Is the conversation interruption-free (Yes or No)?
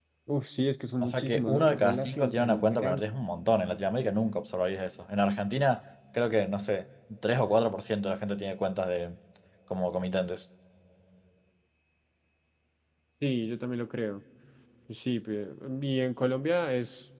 No